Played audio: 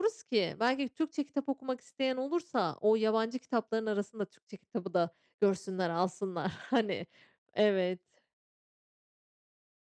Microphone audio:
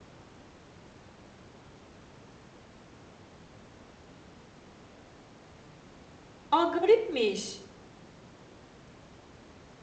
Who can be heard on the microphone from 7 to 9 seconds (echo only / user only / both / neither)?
user only